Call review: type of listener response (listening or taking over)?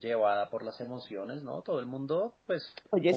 listening